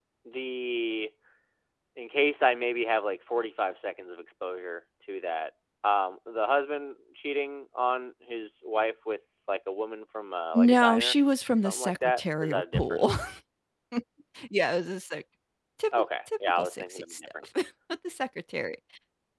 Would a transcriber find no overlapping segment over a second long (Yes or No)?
No